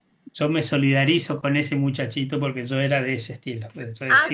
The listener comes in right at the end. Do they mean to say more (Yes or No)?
Yes